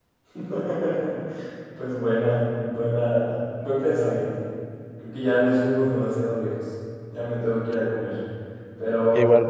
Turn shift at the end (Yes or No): No